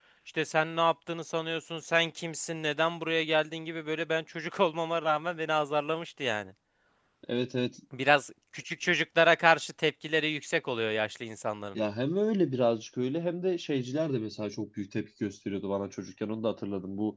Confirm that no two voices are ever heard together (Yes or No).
Yes